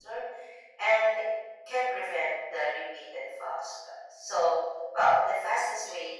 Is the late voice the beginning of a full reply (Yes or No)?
No